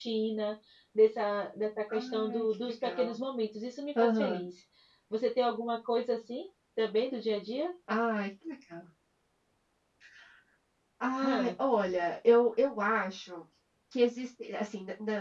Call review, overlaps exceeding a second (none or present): present